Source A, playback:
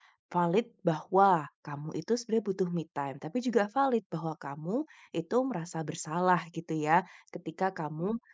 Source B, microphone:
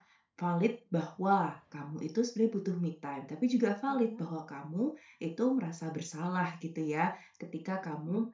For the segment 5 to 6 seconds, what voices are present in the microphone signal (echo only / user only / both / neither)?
echo only